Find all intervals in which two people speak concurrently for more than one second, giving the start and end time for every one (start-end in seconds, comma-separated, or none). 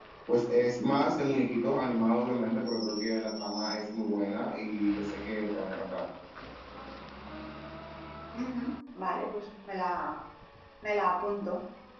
none